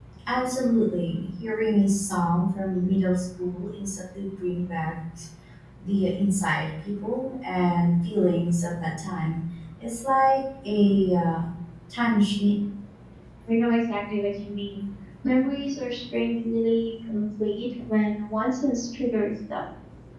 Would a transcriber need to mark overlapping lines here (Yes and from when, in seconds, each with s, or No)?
No